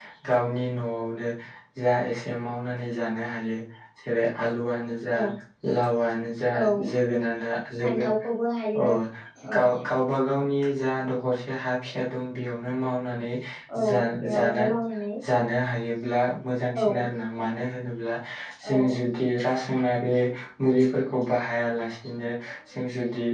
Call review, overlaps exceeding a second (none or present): none